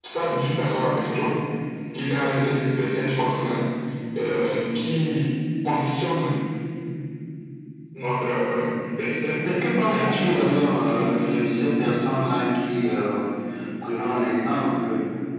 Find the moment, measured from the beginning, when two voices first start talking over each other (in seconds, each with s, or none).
9.8 s